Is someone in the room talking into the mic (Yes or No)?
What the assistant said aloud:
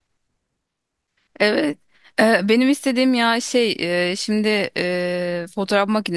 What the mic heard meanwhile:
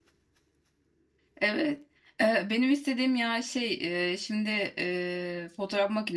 No